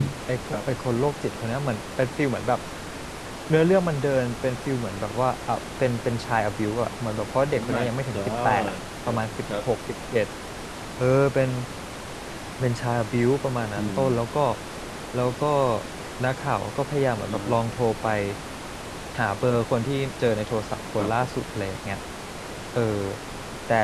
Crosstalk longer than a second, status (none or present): present